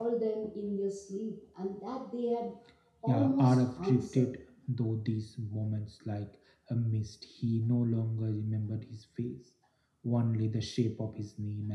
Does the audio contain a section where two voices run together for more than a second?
Yes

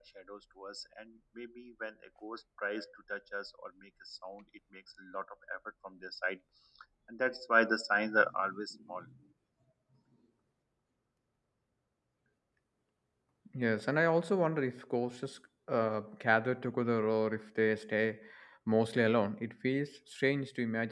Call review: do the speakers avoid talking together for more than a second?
Yes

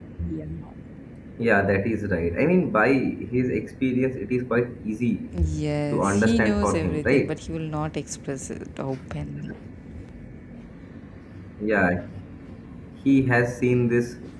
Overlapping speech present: Yes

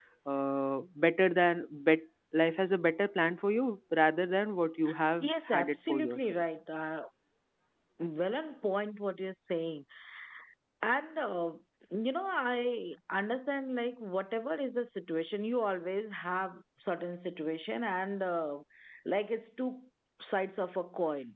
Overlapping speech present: Yes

